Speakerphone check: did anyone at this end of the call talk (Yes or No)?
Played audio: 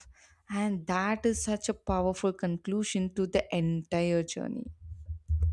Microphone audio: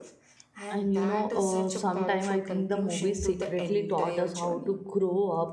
Yes